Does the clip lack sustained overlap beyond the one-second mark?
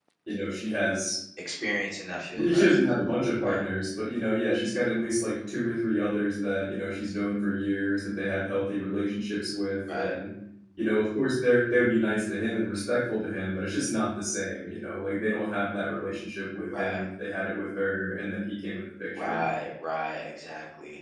Yes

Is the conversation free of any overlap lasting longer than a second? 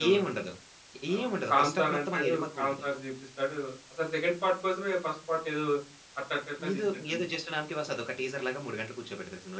No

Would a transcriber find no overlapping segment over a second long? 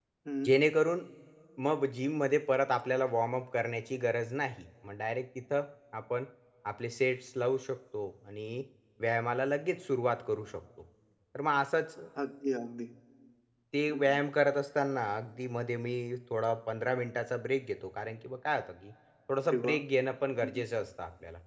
Yes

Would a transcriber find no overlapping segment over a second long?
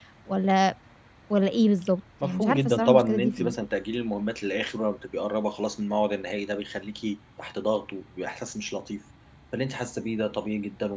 No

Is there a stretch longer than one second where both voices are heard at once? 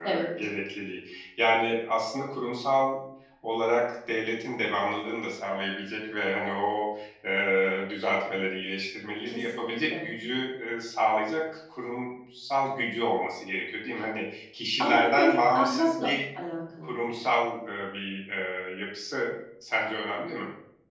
Yes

